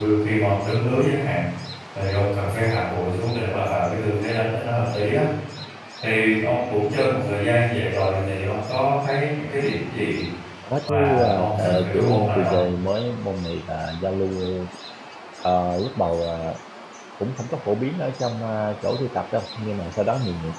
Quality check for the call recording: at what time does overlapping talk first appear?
10.9 s

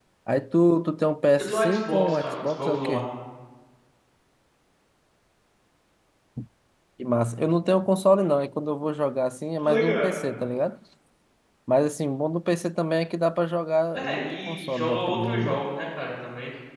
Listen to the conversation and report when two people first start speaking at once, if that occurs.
1.4 s

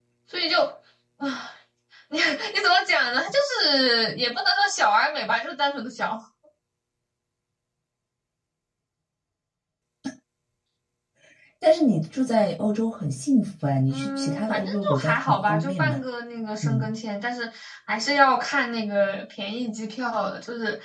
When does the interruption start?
13.9 s

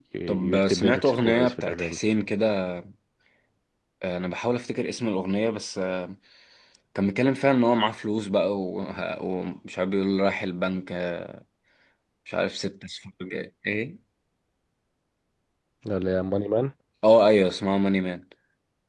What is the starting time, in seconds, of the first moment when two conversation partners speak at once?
0.5 s

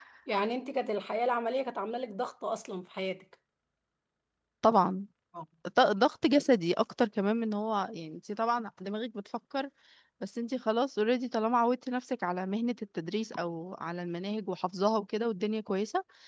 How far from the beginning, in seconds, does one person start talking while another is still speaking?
none

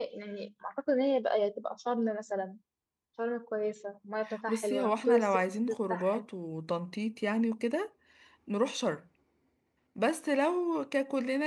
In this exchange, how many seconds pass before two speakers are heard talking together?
4.2 s

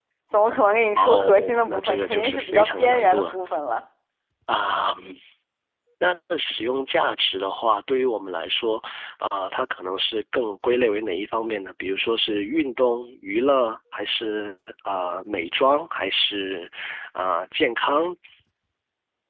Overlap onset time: 1.0 s

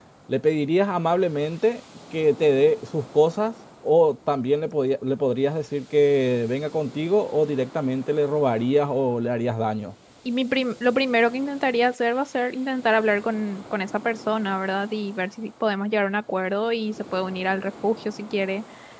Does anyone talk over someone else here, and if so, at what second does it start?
none

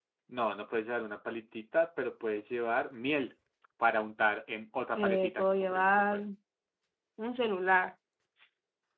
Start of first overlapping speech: 4.9 s

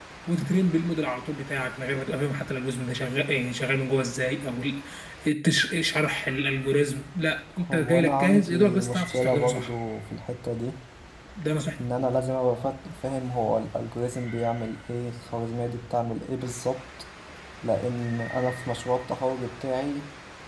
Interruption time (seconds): 7.6 s

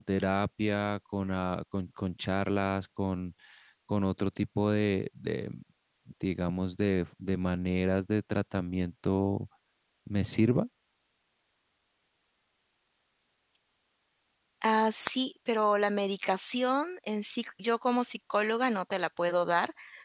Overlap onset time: none

